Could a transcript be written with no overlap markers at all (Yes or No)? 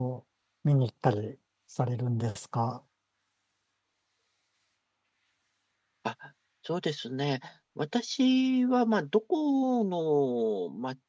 Yes